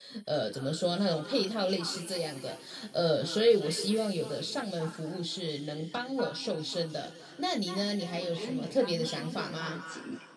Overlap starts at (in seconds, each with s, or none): 8.2 s